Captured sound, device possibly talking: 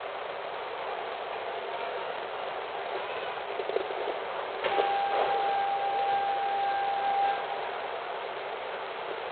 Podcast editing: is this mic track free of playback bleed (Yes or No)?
Yes